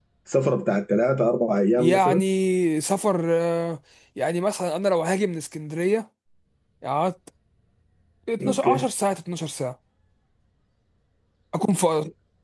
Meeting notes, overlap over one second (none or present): none